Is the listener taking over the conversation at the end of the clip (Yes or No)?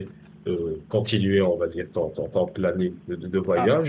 No